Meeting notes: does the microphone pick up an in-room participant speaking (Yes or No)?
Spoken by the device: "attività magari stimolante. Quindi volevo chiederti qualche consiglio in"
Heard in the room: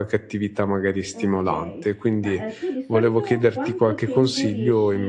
Yes